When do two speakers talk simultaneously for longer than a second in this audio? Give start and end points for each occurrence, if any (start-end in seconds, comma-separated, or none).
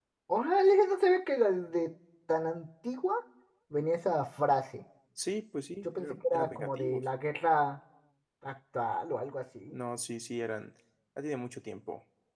5.8-7.0